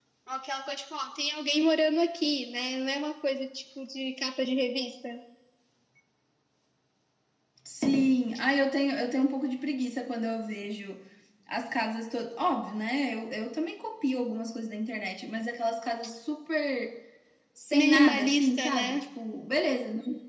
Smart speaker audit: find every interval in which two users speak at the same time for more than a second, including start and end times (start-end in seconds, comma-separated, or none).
17.7-19.0